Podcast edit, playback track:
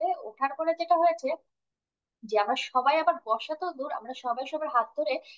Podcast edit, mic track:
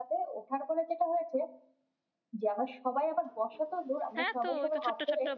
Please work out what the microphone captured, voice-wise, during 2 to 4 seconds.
echo only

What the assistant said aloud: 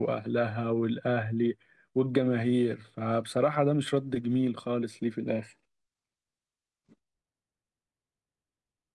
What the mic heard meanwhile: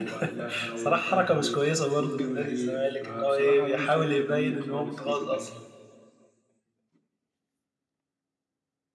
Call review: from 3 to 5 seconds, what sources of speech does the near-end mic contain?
both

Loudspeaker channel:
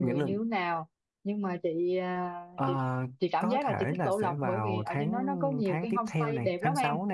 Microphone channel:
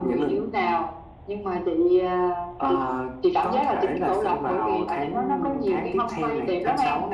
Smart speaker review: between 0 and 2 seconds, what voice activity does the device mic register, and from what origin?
echo only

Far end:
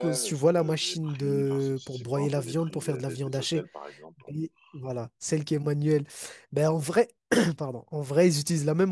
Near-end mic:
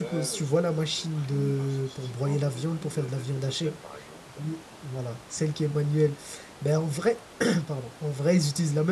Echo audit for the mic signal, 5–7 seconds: echo only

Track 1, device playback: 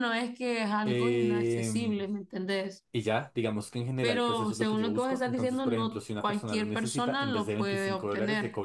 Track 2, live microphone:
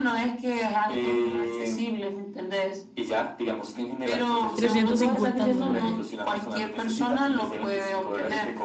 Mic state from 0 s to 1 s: echo only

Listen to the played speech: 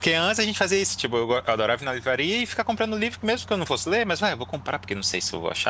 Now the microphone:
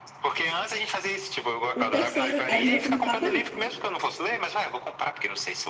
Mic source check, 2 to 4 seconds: both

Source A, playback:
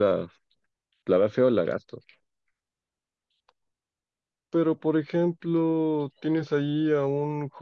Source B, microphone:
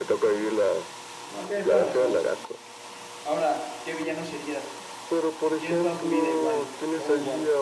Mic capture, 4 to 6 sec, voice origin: both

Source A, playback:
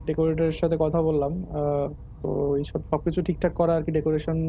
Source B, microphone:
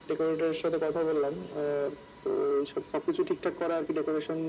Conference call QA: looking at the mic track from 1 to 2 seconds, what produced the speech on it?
echo only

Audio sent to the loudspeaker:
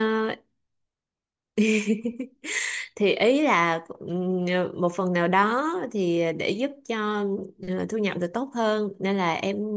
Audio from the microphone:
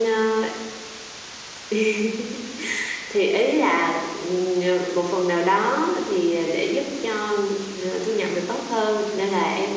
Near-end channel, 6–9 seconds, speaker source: echo only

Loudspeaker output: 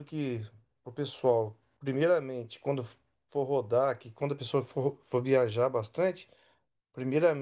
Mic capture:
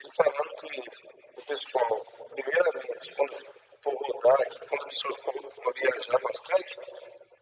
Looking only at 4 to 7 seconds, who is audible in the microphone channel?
echo only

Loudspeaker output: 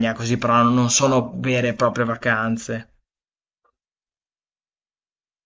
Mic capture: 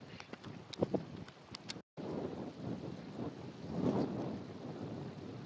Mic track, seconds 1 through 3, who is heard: neither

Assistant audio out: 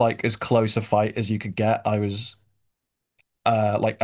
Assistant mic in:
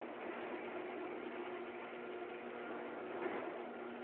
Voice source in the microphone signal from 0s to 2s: neither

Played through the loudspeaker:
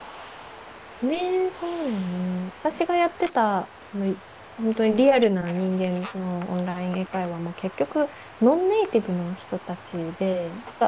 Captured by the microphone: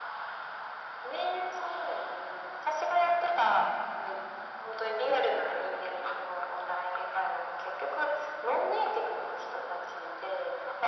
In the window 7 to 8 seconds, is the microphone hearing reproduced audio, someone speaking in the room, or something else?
echo only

